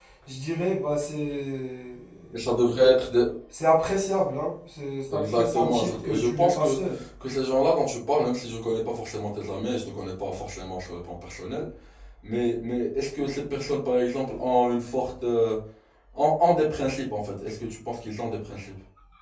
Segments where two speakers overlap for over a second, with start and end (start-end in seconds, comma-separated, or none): 5.3-6.8